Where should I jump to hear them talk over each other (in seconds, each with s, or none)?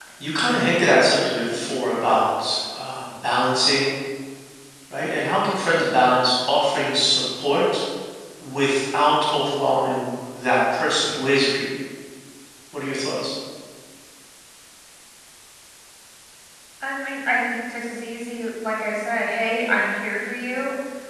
none